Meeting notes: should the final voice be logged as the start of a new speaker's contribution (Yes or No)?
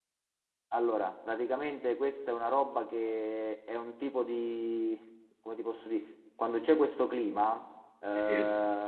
No